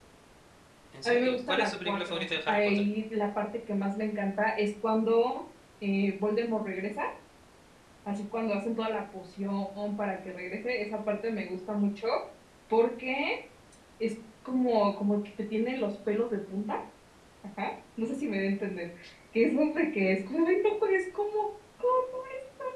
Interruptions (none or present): present